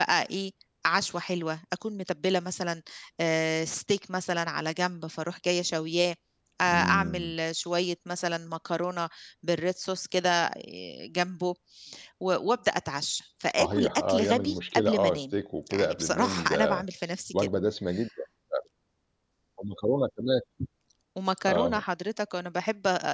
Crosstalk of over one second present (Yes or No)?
Yes